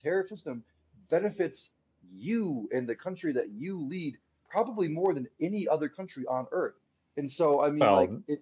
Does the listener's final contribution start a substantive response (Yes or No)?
Yes